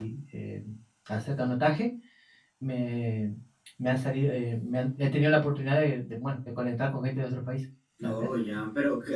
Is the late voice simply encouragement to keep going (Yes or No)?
No